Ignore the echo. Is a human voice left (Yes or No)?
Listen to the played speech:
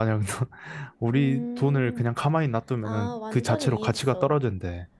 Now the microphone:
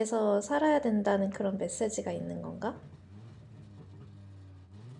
Yes